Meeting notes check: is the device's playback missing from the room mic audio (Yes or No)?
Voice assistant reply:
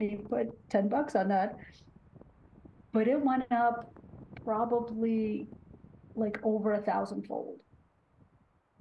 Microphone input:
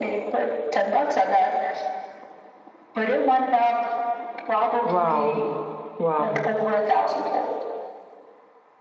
No